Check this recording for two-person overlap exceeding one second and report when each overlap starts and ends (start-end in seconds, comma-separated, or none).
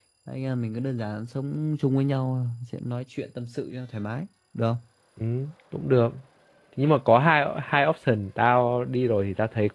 none